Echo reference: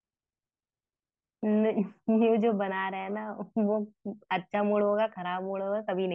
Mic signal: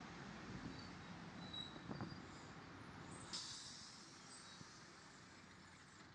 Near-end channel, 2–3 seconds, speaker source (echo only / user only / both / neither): neither